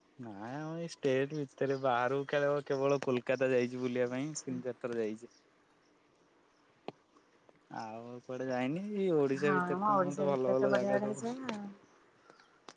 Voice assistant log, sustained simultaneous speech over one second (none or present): present